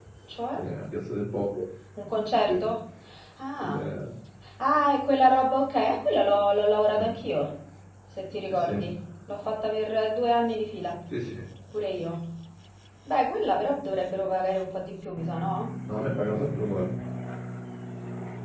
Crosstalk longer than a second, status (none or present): none